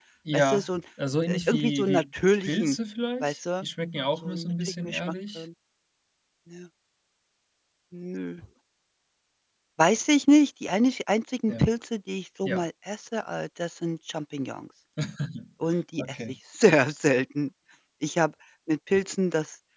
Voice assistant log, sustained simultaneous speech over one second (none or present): present